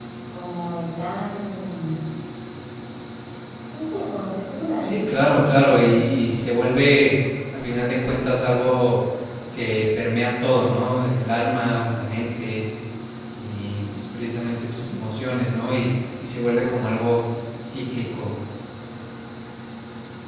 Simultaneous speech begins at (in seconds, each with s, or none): 4.8 s